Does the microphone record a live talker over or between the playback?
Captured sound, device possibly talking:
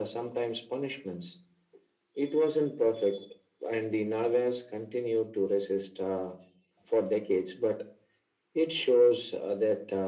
No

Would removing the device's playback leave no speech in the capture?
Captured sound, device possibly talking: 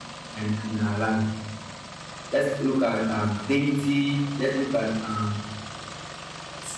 Yes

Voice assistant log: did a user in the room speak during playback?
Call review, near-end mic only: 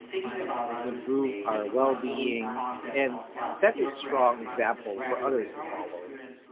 Yes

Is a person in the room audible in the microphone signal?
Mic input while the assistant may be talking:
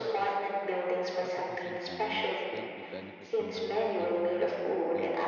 Yes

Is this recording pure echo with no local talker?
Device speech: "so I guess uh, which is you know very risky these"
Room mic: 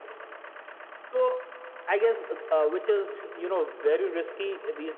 Yes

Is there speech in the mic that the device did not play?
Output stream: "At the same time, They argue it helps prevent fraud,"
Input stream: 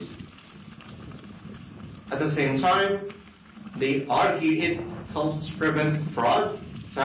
No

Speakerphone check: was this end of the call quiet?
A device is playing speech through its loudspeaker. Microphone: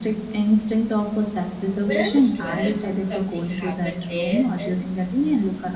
No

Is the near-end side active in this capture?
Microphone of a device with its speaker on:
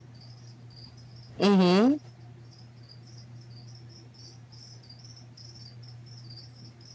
Yes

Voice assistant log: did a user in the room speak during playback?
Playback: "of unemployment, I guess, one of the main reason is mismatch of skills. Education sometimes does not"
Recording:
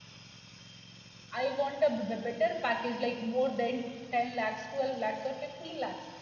Yes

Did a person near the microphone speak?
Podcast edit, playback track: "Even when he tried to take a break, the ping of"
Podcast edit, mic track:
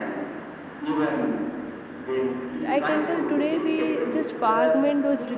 Yes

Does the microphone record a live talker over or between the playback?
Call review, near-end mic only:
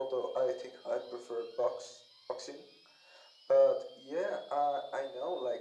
No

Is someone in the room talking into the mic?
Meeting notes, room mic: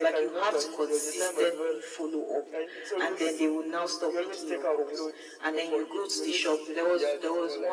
No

